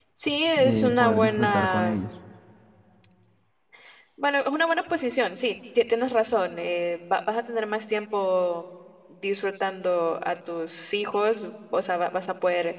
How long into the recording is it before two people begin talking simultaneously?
0.6 s

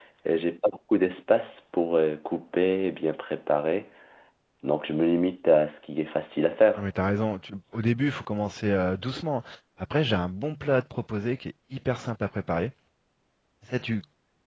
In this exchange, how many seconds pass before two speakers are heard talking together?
none

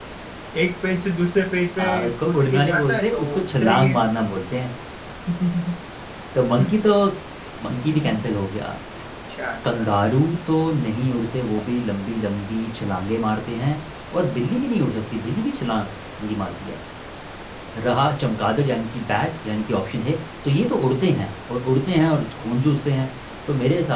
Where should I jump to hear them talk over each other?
1.8 s

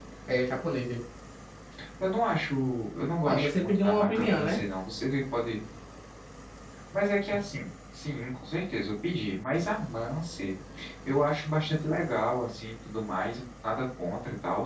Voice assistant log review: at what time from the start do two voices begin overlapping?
3.2 s

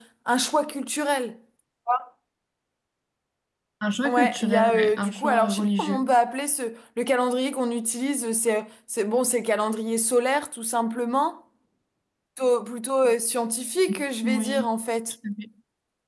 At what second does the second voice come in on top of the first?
4.0 s

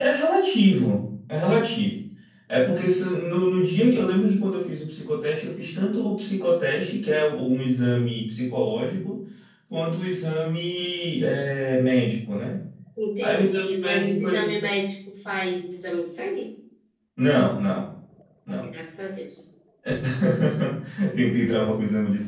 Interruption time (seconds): 13.2 s

